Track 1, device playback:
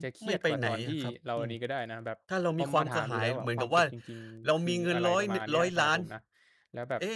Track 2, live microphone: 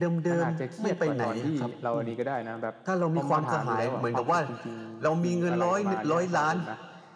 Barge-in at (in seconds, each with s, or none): none